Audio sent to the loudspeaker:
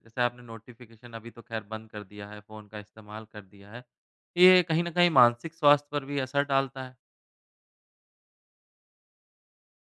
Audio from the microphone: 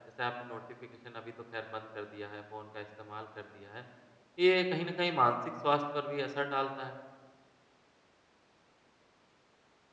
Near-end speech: none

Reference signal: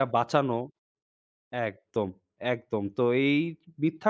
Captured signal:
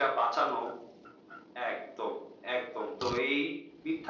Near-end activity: none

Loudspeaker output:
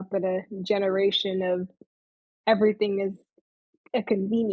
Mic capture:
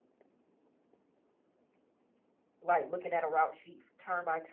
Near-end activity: present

